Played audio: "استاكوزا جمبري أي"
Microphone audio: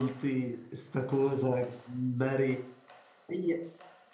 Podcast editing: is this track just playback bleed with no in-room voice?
Yes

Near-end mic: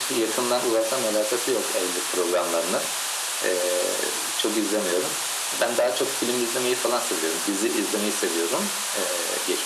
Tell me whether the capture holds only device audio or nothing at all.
Yes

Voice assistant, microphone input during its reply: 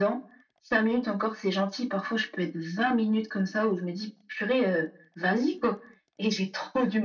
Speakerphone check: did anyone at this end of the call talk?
No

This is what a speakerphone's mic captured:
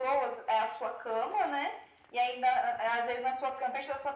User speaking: No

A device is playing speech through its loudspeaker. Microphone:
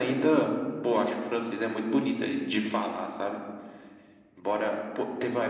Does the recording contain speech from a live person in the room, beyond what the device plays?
No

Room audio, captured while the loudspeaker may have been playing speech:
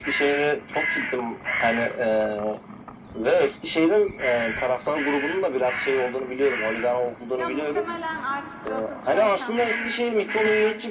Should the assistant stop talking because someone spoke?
Yes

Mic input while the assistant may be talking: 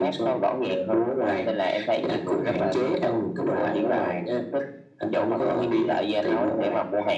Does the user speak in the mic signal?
No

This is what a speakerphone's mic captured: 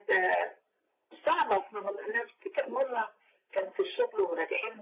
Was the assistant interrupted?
No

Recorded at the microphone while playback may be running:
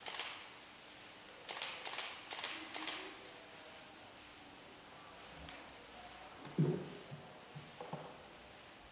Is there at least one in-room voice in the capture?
No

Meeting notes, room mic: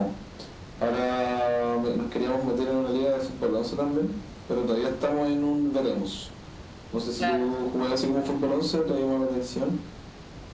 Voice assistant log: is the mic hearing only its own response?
No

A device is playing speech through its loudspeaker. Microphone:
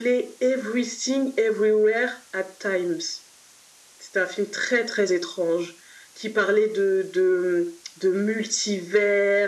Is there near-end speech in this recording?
No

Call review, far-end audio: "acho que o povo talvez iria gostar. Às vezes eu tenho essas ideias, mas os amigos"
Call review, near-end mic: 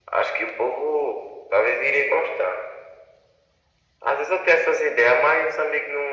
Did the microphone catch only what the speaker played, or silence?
Yes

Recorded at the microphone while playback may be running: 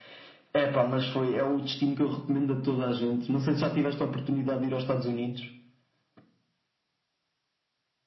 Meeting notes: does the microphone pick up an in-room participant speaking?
No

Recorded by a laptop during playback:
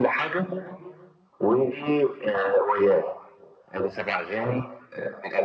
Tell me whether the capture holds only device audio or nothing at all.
Yes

